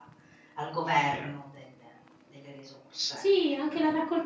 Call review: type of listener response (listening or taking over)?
taking over